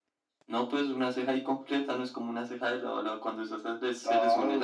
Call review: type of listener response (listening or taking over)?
taking over